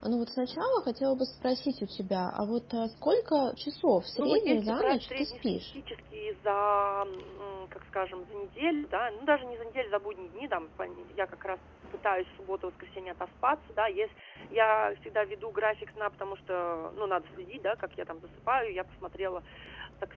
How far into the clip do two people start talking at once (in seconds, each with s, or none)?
4.1 s